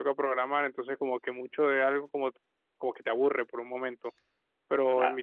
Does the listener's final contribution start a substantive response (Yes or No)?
No